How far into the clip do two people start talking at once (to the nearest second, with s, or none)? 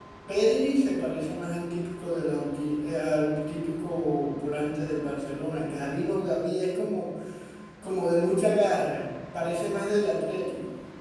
none